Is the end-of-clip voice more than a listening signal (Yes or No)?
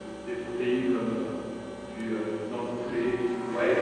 No